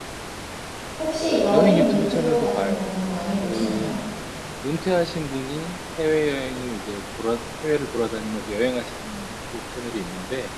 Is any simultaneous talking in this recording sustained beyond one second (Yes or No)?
Yes